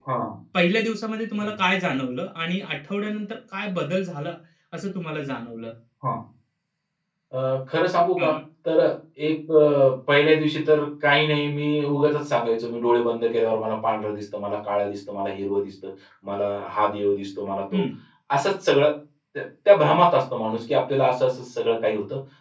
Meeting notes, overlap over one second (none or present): none